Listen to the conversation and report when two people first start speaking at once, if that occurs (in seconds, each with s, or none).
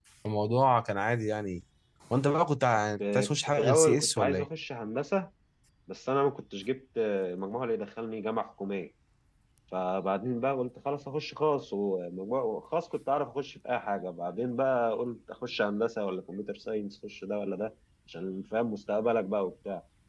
3.0 s